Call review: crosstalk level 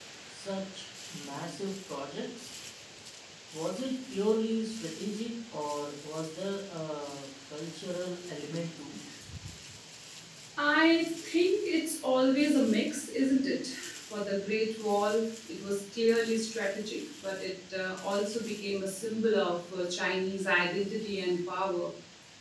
none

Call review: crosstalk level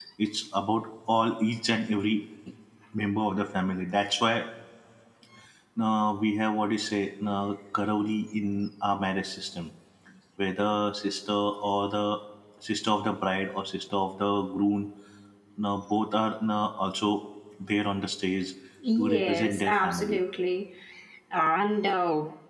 present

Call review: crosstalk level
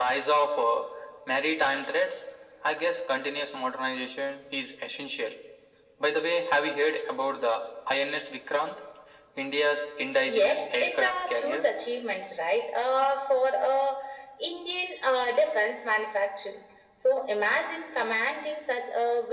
present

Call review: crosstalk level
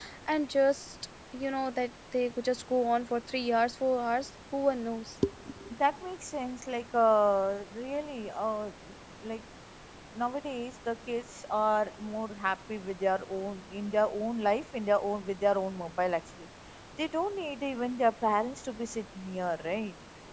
none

